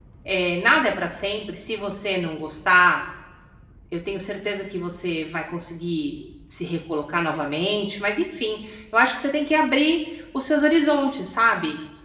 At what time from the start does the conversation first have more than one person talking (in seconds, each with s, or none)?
none